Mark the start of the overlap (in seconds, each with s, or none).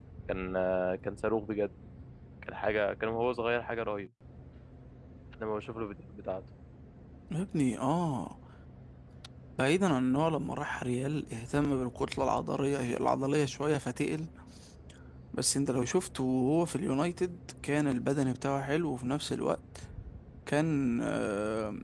none